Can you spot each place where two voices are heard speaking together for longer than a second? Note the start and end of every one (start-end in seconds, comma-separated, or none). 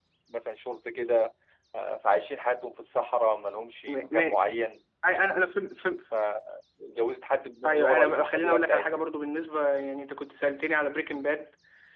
7.6-9.1